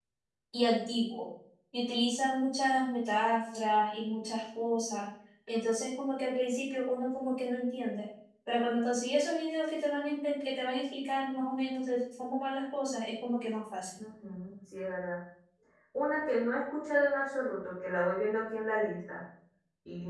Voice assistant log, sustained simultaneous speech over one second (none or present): none